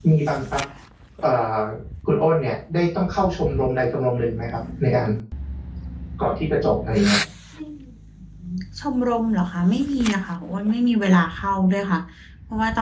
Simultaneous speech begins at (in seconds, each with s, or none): none